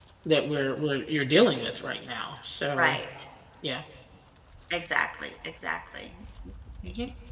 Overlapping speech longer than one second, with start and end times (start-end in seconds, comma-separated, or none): none